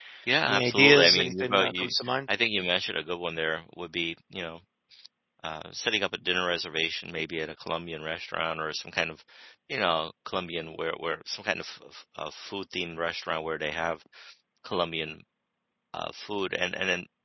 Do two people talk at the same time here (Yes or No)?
Yes